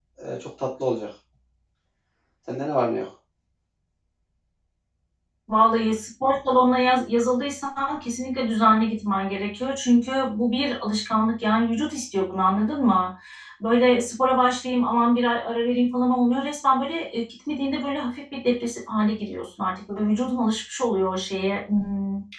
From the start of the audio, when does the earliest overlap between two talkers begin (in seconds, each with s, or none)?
none